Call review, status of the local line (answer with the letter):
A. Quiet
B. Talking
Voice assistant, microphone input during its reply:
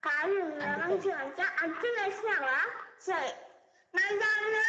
B